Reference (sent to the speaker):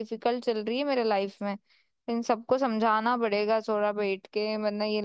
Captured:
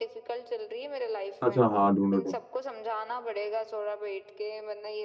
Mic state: both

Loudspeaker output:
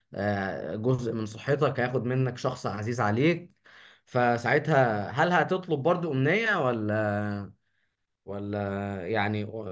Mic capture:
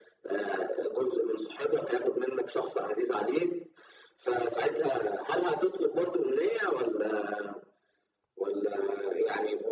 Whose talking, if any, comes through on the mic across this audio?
echo only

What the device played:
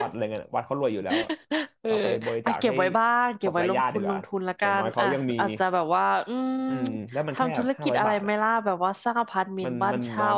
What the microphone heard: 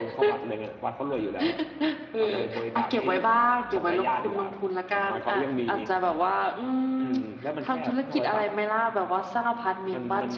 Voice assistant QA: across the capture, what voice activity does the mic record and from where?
echo only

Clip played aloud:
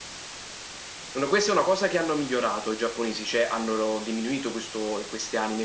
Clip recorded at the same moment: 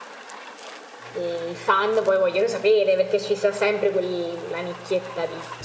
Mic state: user only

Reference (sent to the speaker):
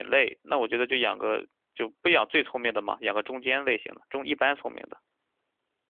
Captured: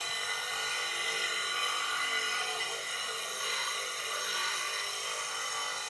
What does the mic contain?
neither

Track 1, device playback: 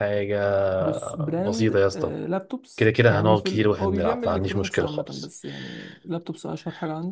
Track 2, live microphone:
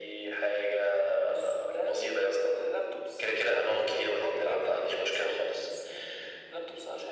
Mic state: echo only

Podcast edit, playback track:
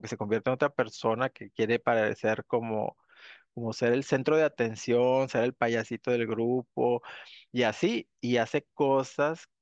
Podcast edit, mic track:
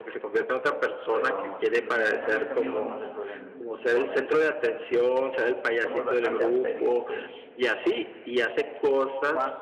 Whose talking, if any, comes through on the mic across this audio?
both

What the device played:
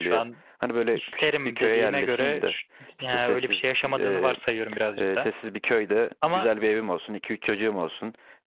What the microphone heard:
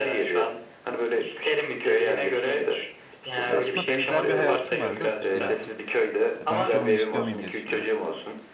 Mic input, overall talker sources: both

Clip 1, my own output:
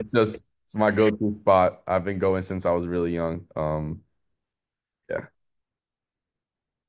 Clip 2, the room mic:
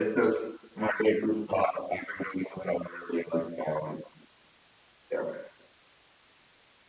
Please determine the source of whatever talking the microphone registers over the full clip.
echo only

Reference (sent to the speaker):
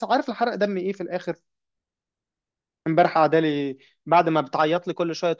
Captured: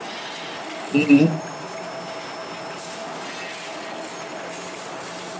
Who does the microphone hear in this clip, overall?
user only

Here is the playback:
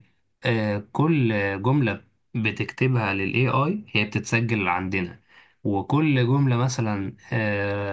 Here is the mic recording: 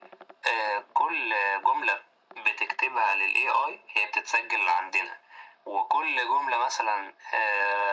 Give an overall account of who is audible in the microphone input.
echo only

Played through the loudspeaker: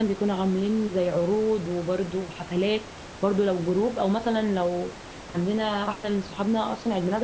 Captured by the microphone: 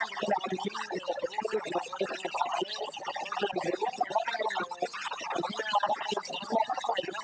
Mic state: echo only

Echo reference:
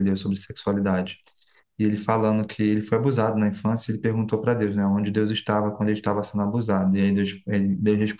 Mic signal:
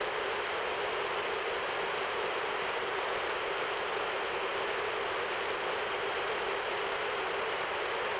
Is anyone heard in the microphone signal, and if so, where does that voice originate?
neither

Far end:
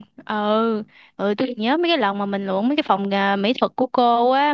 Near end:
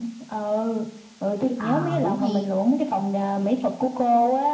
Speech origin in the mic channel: both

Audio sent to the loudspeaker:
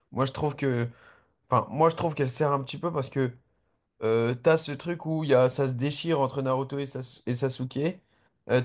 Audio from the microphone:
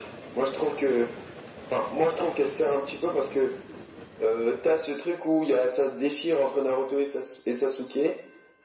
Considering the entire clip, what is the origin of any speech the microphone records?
echo only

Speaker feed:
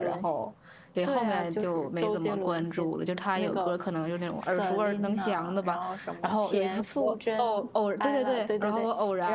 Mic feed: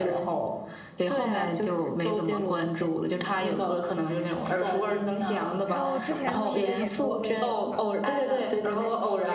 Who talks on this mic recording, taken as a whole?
both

